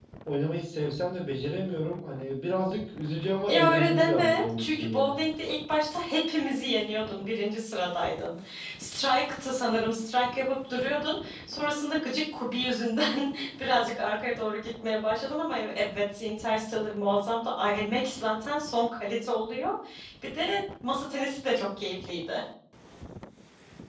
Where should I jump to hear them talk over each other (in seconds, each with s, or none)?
3.5 s